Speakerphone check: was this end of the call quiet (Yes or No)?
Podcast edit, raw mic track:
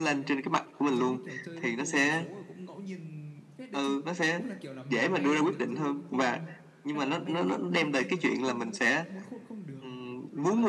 No